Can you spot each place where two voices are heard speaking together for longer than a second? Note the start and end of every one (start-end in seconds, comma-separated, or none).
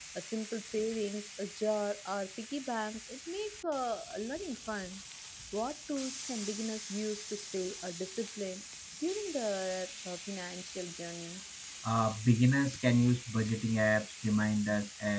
none